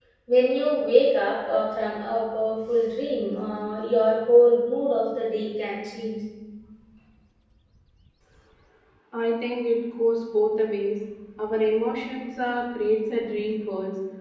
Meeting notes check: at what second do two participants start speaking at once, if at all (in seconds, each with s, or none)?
none